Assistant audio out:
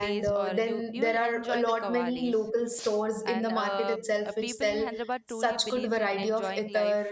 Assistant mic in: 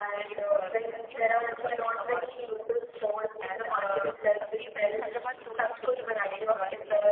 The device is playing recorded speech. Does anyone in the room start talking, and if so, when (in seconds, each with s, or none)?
none